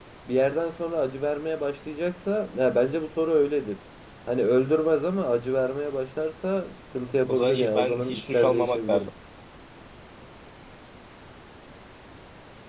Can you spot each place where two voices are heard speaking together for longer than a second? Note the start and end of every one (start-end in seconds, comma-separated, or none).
7.3-9.0